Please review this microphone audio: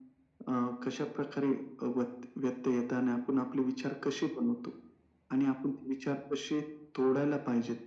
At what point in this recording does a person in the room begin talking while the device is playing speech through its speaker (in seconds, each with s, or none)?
none